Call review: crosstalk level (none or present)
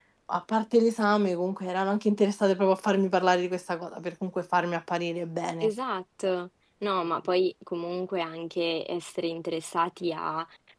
none